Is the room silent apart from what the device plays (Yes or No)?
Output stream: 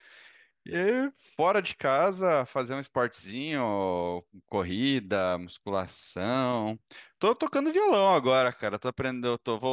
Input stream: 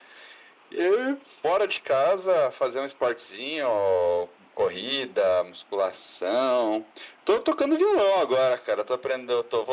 Yes